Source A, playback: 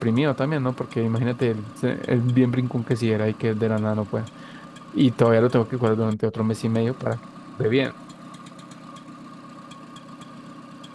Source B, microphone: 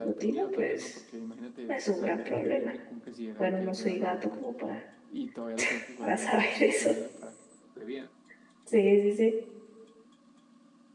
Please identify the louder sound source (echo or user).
user